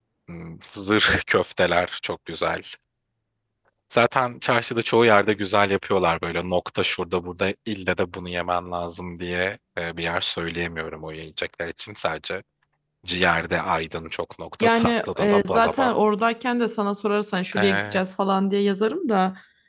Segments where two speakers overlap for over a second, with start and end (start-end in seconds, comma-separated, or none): 14.6-15.9